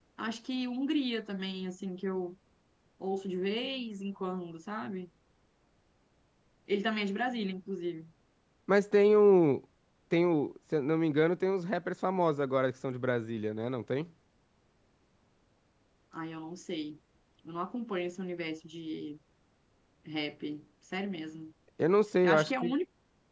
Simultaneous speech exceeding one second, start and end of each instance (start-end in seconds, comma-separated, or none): none